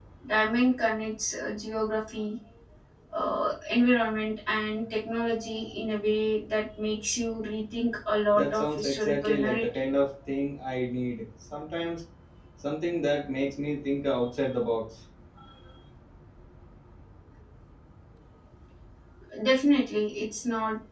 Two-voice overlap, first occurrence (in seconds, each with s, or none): 8.3 s